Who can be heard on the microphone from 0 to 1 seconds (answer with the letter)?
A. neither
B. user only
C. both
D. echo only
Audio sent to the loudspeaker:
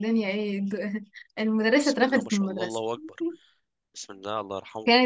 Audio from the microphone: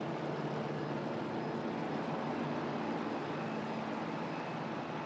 A